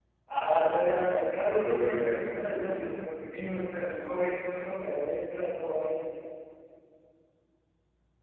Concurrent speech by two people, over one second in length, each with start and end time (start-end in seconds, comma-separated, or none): 1.4-2.9